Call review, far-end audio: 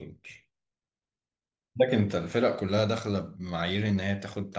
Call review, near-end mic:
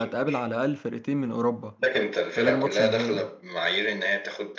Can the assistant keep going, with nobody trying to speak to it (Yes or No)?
No